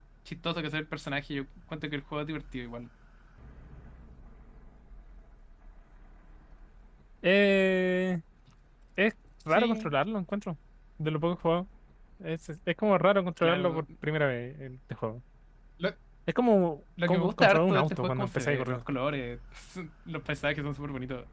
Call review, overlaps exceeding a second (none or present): present